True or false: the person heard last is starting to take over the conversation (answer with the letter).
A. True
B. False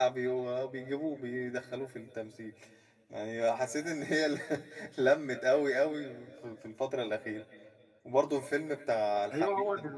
A